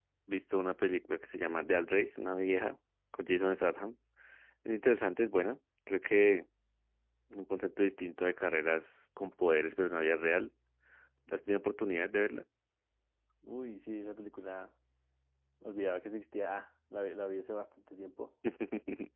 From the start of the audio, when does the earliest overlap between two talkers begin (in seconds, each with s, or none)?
none